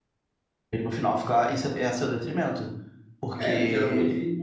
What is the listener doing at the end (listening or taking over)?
taking over